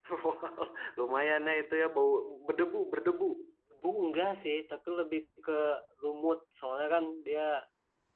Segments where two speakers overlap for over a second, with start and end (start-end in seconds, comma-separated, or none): none